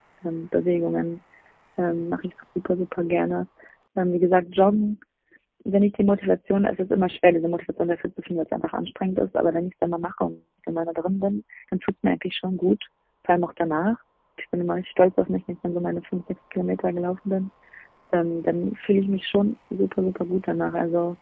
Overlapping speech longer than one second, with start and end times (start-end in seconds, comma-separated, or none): none